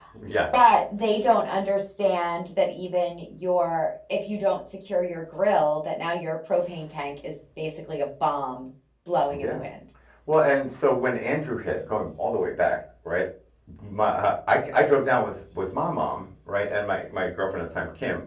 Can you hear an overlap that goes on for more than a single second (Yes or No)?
No